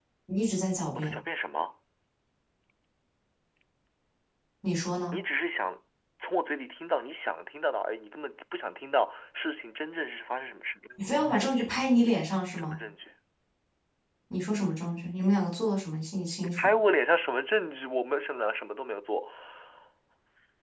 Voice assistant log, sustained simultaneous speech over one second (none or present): none